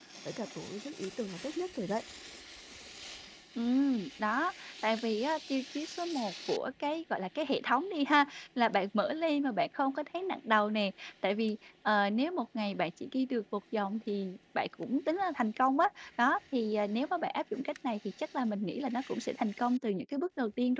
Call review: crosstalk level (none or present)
none